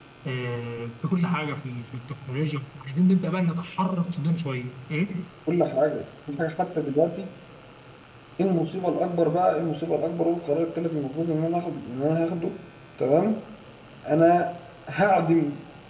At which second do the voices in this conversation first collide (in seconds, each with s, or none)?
none